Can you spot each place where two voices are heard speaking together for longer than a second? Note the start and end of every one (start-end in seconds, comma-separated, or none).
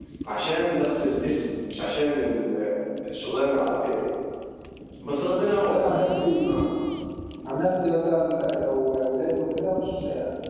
5.2-6.4